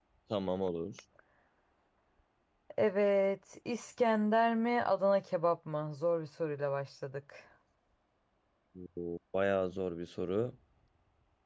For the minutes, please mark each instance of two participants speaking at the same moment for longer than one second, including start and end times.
none

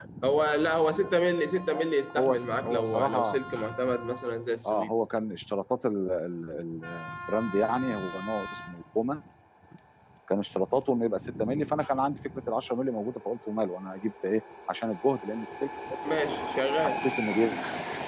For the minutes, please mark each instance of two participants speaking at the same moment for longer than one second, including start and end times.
2.1-3.4

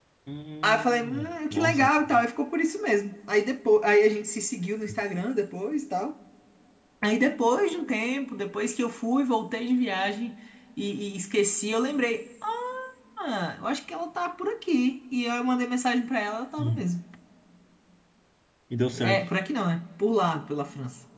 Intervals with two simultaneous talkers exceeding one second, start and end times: 0.6-1.9

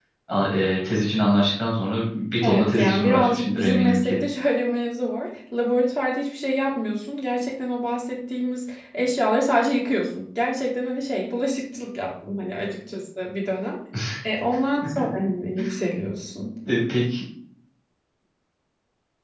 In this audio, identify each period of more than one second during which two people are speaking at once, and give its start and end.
2.4-4.2

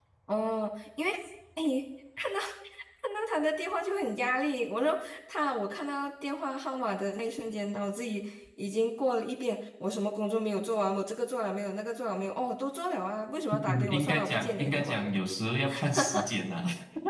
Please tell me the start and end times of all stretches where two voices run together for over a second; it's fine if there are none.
13.5-15.0

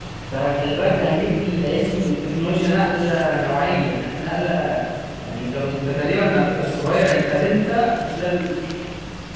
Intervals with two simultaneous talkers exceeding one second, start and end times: none

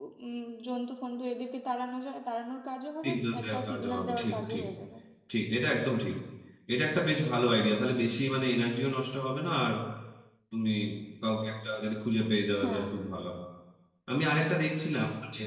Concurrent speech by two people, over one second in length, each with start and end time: 3.0-4.7

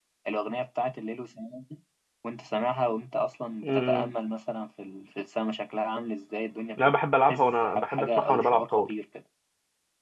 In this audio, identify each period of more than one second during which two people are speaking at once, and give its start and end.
7.3-8.8

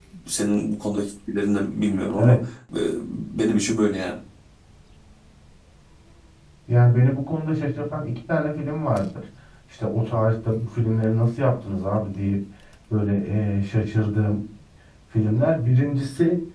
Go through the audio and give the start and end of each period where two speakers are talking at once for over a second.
none

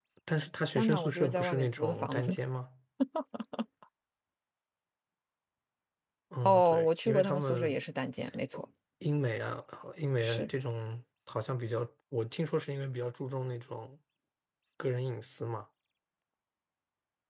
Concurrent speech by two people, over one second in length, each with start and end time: 0.6-2.4, 6.4-7.8

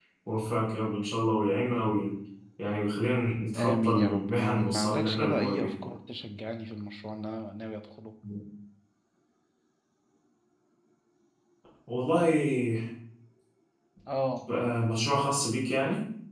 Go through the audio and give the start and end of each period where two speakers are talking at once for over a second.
3.6-5.9

